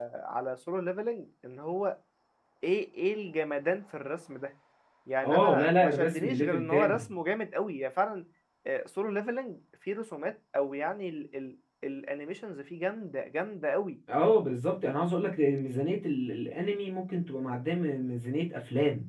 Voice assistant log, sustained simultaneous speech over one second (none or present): present